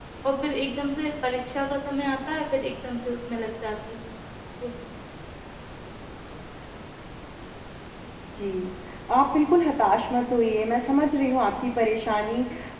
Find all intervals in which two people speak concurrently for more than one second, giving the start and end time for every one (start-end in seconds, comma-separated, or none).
none